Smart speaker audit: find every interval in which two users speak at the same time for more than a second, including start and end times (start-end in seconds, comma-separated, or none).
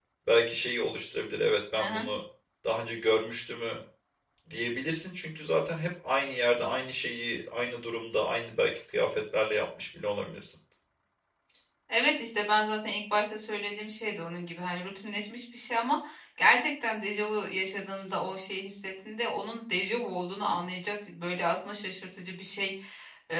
none